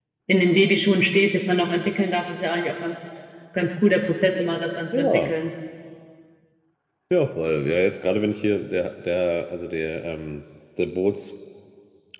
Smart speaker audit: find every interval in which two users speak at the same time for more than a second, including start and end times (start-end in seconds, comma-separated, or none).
none